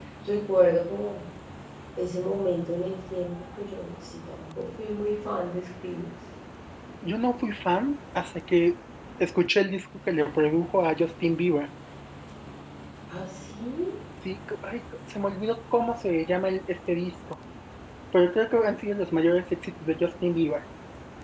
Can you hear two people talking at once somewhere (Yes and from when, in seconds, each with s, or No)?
No